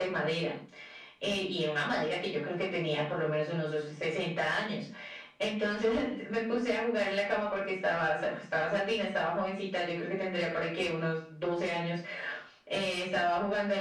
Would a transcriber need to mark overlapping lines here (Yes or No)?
No